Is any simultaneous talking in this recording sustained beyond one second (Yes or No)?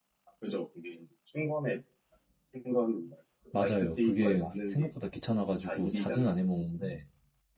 Yes